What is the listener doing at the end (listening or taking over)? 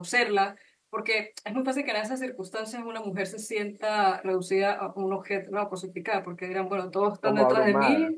listening